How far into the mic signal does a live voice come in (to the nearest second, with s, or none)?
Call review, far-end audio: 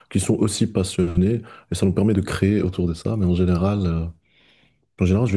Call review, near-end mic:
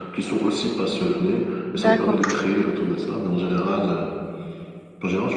2 s